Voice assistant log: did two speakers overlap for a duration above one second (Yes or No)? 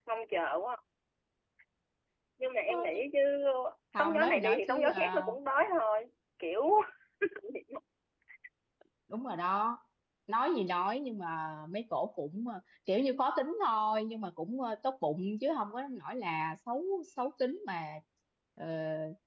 Yes